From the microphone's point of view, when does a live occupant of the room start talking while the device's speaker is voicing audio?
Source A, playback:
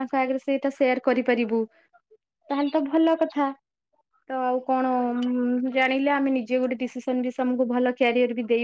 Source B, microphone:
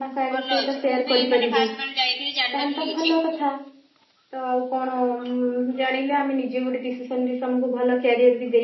0.3 s

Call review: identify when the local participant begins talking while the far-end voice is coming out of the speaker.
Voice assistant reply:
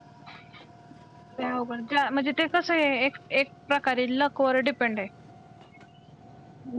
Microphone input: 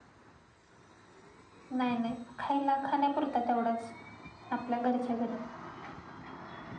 1.8 s

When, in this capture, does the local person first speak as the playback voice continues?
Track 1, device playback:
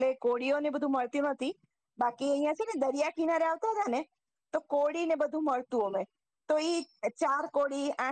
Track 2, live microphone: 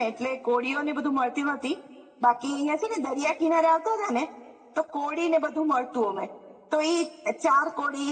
none

